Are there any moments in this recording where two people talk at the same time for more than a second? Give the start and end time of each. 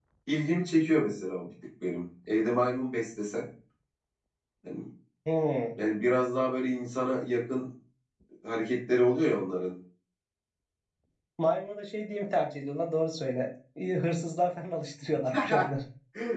none

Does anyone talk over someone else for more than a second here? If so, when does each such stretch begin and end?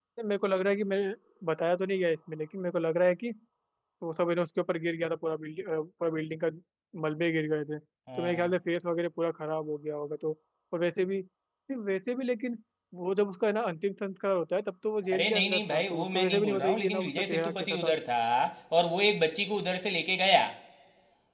15.1-17.9

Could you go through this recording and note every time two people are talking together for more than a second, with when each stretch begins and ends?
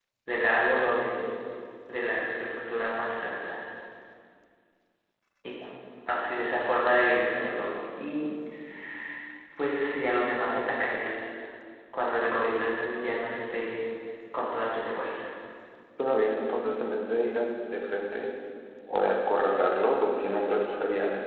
none

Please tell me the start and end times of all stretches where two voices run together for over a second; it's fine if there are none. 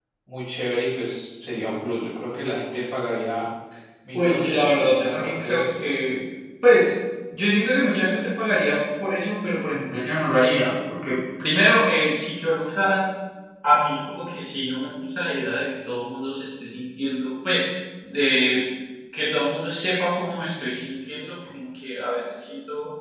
4.1-5.9

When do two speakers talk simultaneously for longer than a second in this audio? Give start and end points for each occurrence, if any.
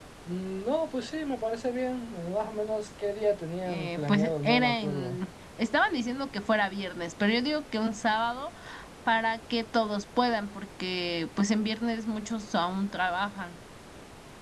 3.6-5.2

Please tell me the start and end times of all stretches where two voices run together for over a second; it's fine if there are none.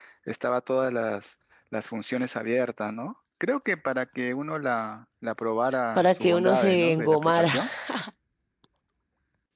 6.0-7.5

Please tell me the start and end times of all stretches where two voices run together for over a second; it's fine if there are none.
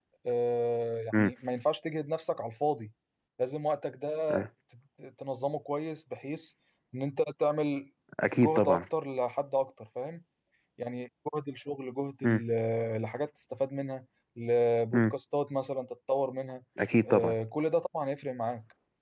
none

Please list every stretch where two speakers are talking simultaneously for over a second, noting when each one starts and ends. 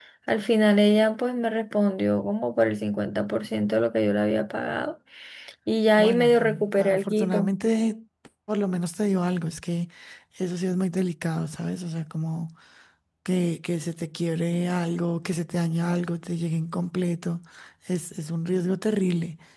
6.0-7.5

